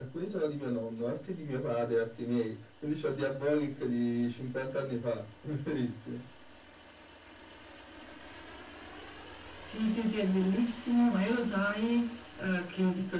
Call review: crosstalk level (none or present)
none